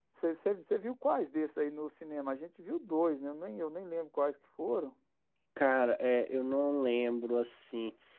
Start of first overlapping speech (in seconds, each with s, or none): none